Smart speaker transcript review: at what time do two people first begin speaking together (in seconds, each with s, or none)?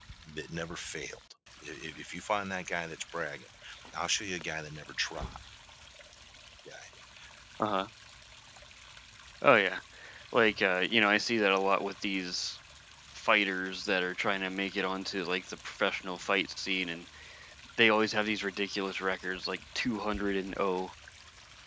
none